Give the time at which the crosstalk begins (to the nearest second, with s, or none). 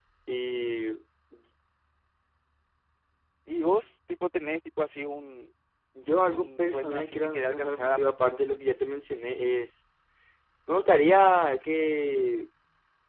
6 s